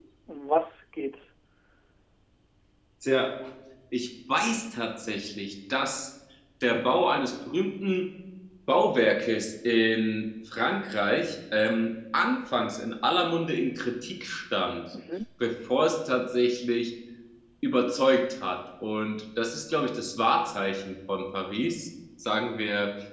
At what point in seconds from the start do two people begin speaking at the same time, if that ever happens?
none

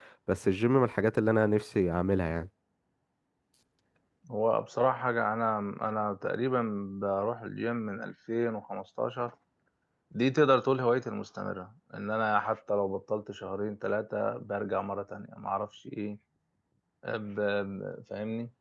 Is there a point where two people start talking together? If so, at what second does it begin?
none

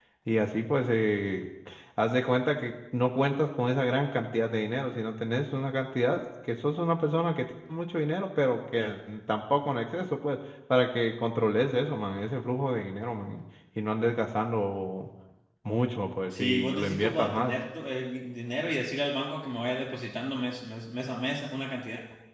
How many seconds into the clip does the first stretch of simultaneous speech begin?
16.3 s

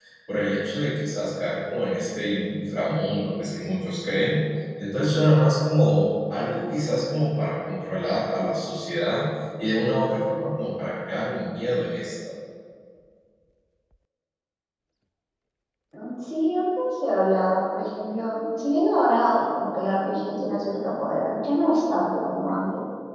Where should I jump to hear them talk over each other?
none

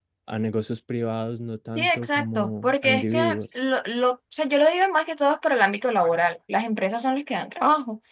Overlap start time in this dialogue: 1.7 s

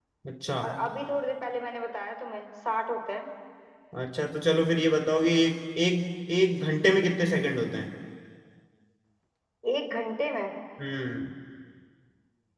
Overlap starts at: none

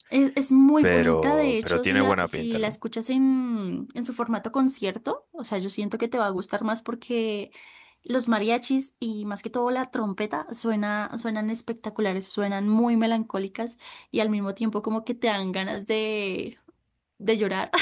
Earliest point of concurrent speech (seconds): 0.8 s

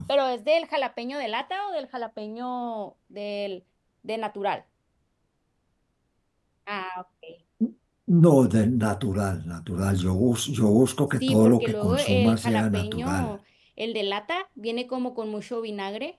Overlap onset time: 11.2 s

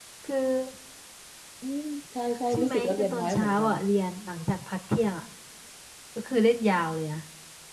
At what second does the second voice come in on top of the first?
2.5 s

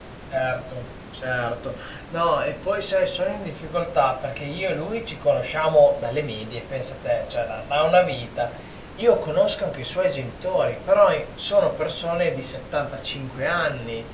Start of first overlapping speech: none

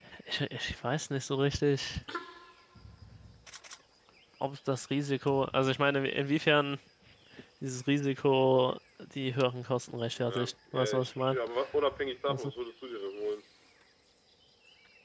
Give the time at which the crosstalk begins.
10.2 s

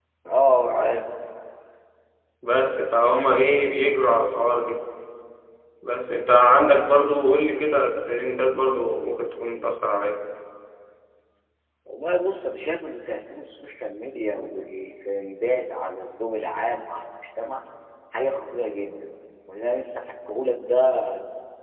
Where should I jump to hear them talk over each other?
none

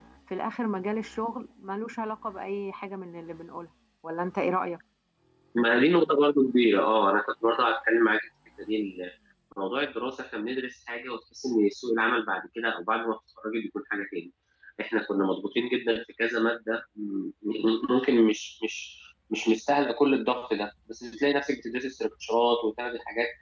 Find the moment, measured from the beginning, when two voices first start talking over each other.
none

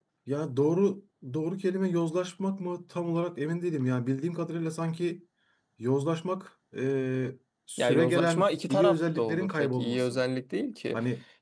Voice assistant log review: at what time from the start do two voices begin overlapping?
7.8 s

